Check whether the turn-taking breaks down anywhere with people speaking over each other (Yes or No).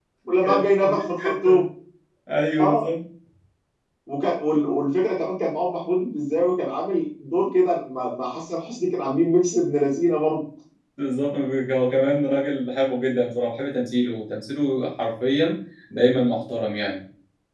Yes